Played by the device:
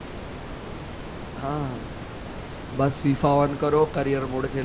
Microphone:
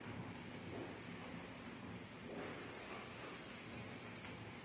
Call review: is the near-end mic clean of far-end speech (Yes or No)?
Yes